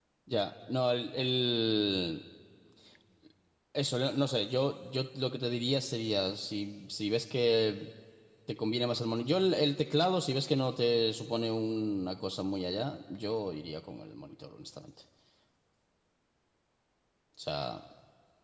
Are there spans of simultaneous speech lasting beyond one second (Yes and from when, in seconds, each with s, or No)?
No